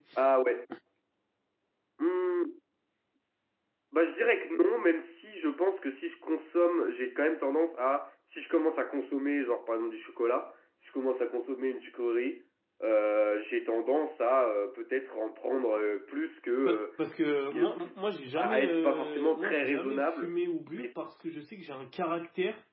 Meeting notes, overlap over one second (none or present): present